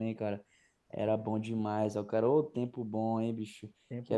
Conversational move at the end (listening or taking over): listening